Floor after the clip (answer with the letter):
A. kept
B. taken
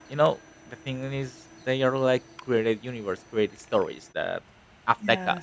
A